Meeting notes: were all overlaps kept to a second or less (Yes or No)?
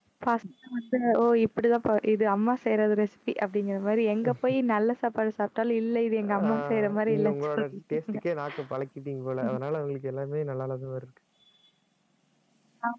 No